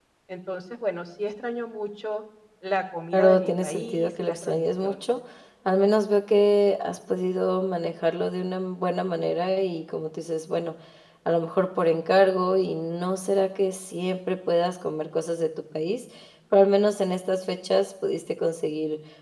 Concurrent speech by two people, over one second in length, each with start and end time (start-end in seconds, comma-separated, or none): 3.1-4.9